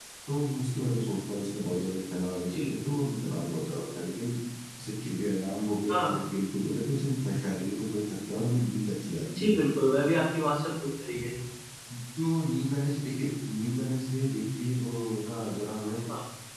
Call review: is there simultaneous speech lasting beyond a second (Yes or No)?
No